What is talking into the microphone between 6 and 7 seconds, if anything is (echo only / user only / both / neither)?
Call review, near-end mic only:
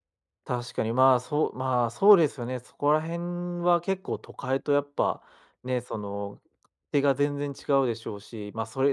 user only